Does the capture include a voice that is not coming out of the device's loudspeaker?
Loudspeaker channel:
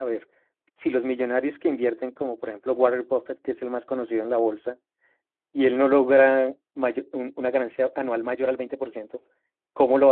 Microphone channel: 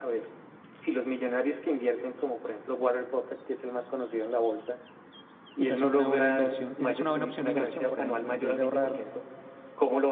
Yes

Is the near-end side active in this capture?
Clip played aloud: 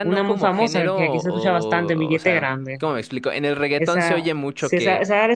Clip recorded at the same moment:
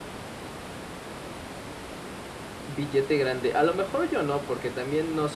Yes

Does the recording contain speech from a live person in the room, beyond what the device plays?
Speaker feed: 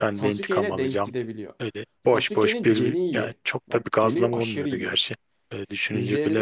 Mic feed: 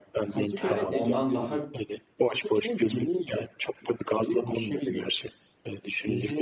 Yes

